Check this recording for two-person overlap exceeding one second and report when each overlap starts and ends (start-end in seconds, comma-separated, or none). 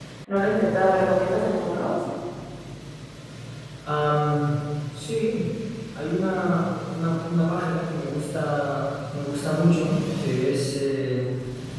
none